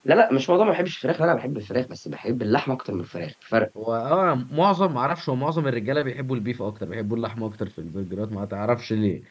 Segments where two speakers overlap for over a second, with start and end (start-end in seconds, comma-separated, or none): none